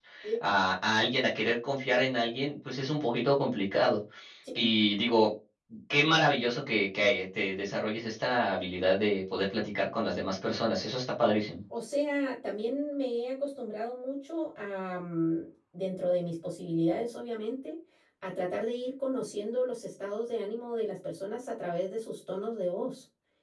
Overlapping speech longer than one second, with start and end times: none

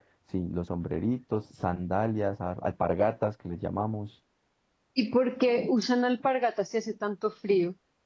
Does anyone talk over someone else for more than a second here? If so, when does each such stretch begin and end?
none

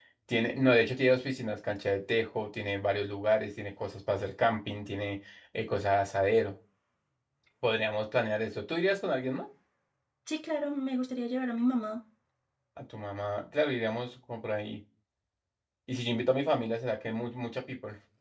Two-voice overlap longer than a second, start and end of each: none

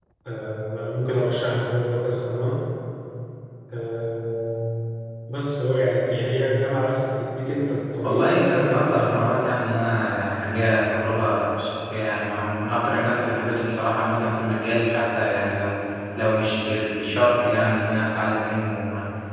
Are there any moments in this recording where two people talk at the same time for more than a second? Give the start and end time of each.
8.0-9.2

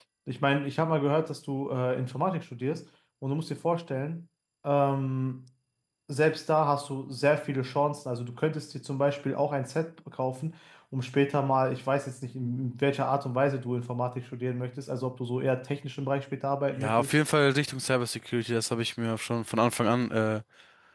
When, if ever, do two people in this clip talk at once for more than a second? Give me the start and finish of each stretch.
none

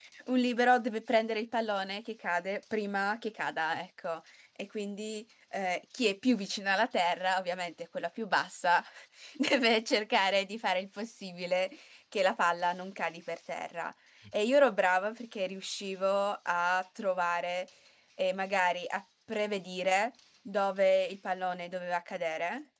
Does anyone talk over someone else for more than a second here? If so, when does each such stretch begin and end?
none

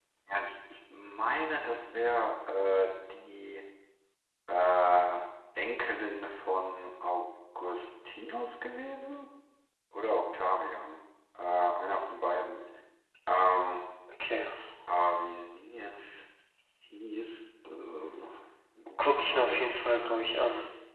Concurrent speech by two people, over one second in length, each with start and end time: 19.0-20.4

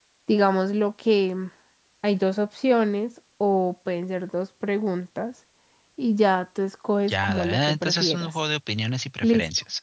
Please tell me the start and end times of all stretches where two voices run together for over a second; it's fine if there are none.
7.1-8.3

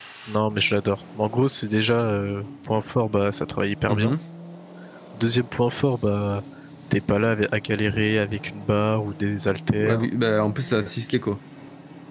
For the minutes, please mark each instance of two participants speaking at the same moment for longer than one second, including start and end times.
none

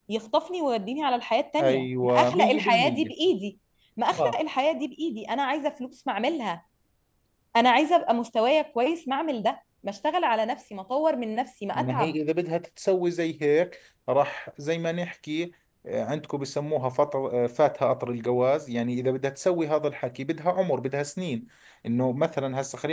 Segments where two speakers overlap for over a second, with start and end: 1.6-3.1

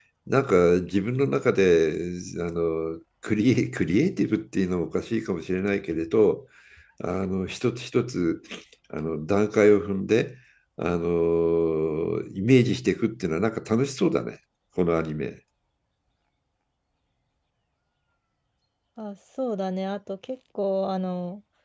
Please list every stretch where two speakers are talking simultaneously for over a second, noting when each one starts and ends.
none

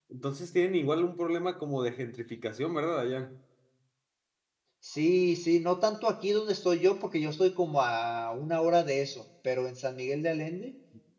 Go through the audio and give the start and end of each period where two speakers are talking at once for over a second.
none

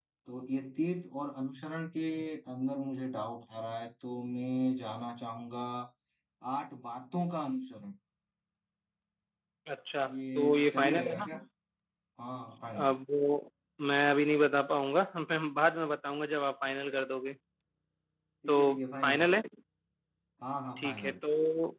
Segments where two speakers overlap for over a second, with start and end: 10.1-11.3

